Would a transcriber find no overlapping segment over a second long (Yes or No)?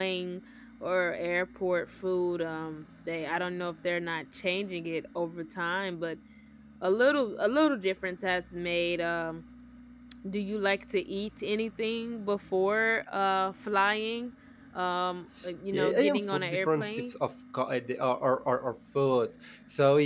No